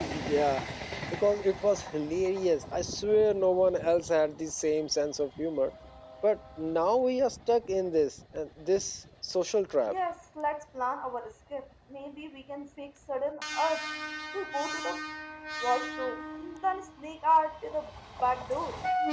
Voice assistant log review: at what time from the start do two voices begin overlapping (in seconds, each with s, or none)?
none